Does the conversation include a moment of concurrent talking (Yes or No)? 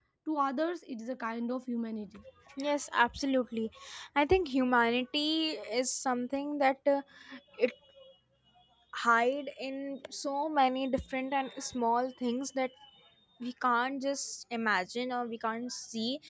No